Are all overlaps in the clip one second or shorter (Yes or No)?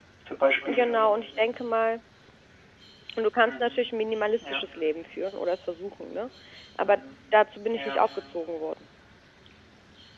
Yes